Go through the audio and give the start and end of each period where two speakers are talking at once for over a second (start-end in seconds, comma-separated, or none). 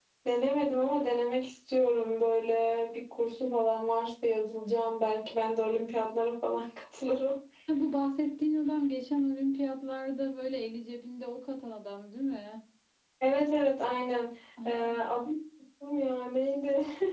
none